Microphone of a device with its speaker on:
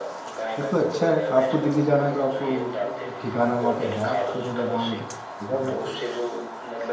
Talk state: both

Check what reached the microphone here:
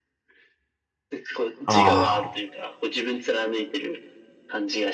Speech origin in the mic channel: both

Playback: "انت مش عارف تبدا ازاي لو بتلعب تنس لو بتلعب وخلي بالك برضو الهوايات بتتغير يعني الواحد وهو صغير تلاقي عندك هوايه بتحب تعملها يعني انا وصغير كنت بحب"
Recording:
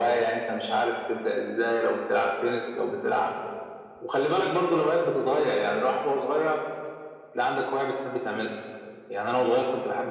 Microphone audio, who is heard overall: echo only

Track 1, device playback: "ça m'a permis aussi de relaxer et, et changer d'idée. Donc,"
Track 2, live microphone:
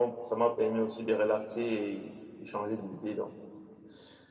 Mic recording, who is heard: echo only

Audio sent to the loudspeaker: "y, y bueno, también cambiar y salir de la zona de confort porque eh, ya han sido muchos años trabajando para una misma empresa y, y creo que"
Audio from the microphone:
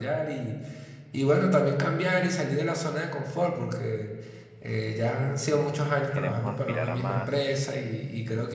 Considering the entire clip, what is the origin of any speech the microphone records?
both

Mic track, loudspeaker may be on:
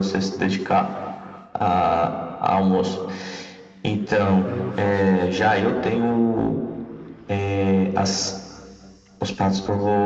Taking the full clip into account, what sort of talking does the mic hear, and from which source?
both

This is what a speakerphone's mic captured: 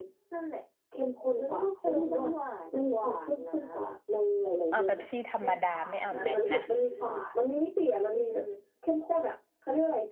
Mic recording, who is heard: both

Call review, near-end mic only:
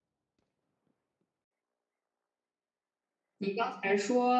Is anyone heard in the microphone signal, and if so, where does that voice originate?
user only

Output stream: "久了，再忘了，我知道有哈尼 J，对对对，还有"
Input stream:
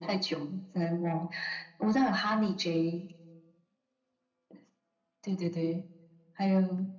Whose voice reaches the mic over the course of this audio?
echo only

